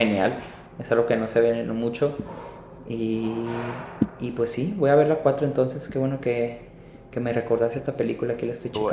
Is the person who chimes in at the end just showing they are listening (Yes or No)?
No